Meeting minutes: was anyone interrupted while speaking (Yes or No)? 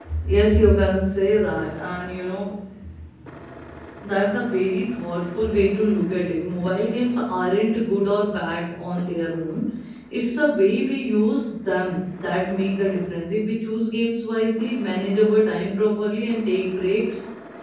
No